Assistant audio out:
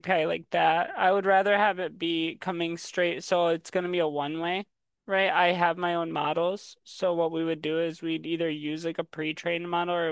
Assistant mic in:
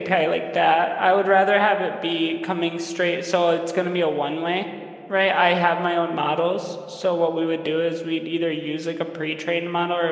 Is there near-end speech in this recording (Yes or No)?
No